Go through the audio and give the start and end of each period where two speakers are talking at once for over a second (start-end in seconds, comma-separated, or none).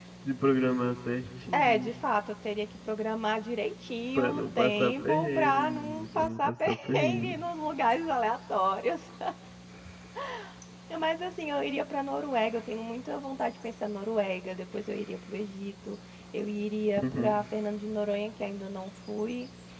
4.2-7.3